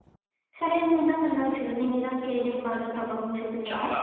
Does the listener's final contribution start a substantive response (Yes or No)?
No